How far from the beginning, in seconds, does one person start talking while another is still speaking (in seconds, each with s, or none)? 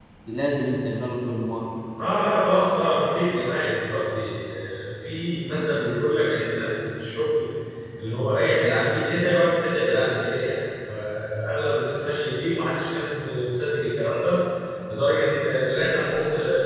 none